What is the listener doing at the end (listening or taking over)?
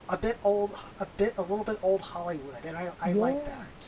taking over